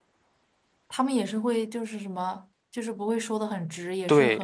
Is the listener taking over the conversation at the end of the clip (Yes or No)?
Yes